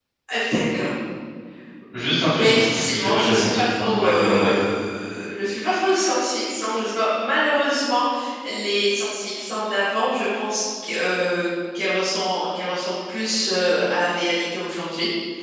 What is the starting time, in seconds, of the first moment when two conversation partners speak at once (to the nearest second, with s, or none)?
2 s